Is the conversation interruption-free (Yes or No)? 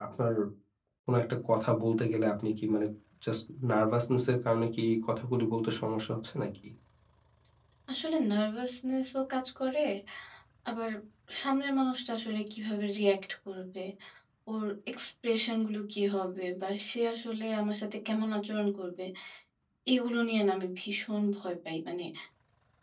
Yes